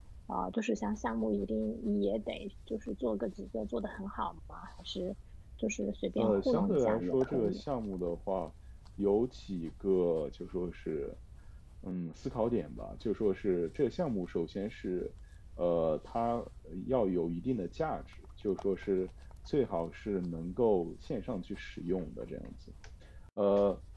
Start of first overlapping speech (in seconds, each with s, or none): 6.2 s